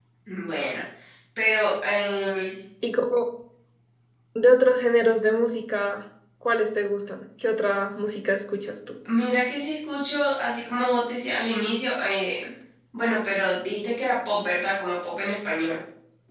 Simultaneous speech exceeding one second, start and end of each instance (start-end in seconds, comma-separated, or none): none